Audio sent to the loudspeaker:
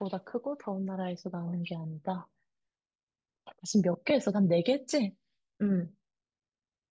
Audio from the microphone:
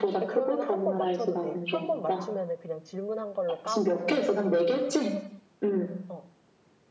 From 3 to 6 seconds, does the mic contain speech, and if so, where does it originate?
both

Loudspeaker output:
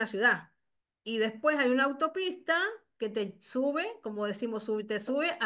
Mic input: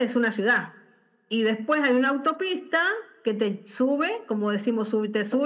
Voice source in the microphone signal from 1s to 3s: echo only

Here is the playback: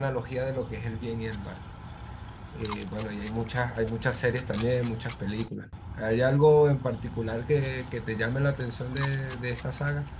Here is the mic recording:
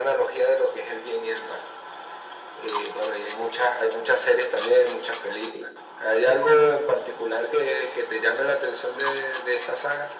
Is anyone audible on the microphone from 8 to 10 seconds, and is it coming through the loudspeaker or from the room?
echo only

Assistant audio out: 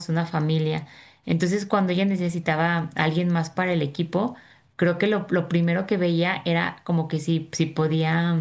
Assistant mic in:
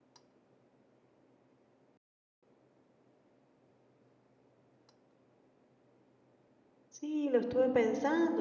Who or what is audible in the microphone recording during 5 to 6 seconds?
neither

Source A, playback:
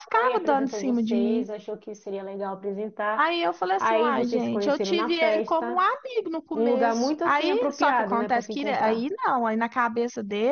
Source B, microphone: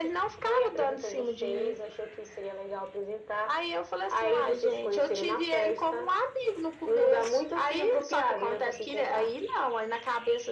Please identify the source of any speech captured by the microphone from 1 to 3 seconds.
echo only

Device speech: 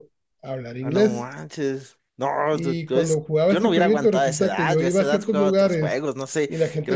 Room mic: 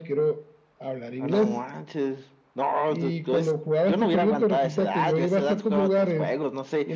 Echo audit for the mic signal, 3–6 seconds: echo only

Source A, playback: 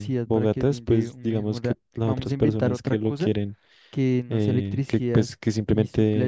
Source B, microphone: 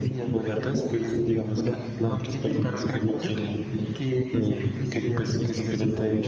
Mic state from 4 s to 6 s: both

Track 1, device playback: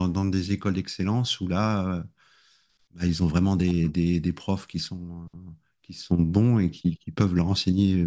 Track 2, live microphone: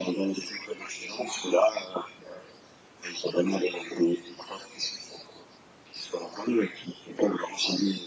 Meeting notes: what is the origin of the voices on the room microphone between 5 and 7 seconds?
echo only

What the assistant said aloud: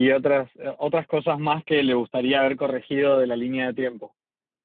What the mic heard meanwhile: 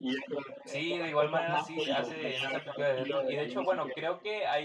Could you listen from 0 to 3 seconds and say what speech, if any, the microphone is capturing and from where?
both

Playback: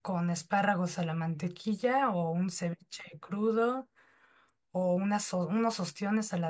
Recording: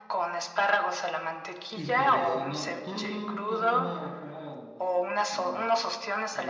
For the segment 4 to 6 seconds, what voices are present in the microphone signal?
both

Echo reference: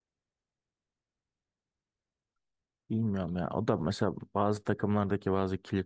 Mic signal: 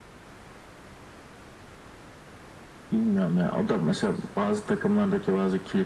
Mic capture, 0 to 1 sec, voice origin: neither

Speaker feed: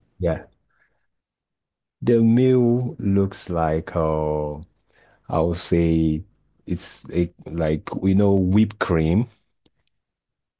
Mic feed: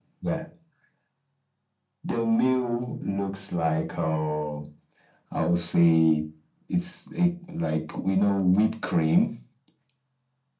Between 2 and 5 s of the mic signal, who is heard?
echo only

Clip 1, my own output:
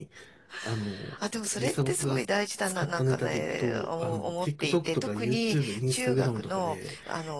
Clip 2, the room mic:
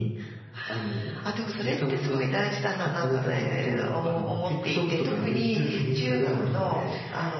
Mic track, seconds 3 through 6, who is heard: echo only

